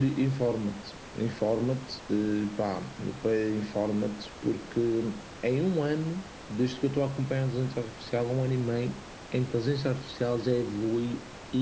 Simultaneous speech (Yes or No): No